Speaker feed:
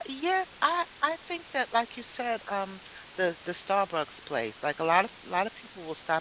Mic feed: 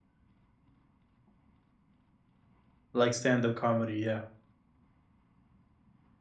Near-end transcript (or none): Like stand-up comedy, yeah.